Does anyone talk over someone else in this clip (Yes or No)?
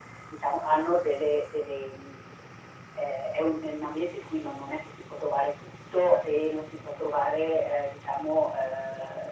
No